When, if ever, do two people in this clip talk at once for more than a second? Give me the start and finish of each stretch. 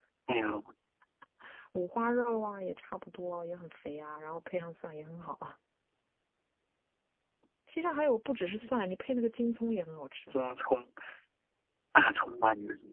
none

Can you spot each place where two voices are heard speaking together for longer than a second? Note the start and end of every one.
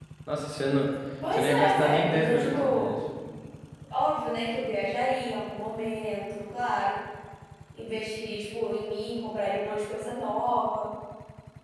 1.3-2.9

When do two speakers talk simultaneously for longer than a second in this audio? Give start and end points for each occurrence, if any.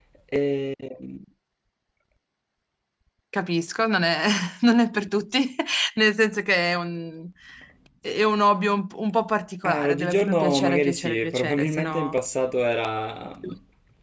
9.6-12.1

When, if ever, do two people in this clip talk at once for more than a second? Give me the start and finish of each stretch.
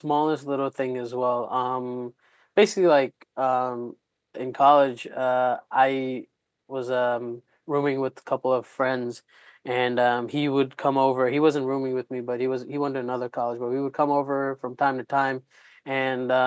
none

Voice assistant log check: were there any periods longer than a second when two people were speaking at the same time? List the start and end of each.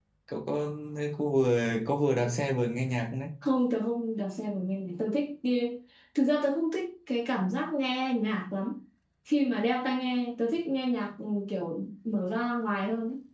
none

